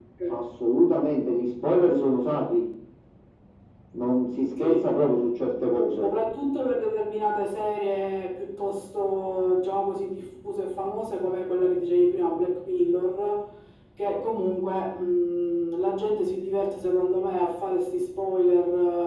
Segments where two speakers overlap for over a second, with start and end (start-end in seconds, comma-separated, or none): none